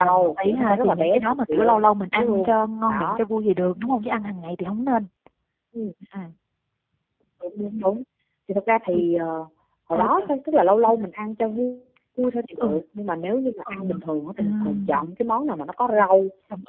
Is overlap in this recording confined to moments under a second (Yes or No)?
No